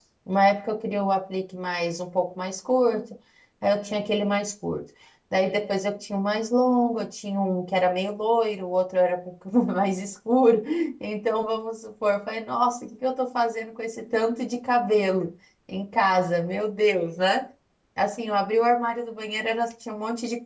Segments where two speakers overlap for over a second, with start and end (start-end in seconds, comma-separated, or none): none